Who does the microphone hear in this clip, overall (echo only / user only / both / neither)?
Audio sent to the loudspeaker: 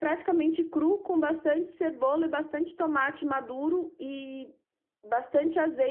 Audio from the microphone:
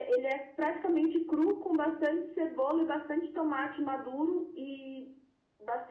echo only